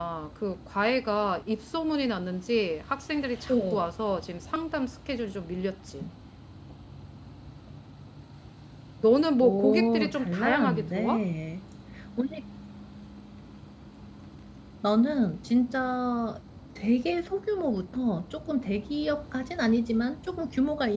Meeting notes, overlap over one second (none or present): present